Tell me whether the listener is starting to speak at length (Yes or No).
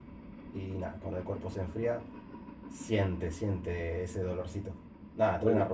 No